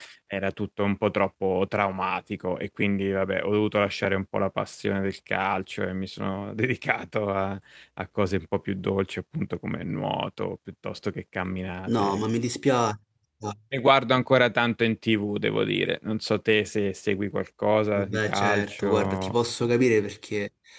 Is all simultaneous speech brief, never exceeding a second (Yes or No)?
No